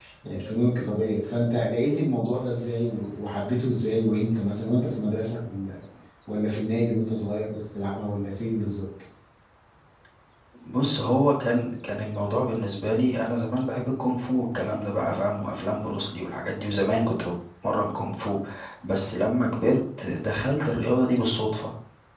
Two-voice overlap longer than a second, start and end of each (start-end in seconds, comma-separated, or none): none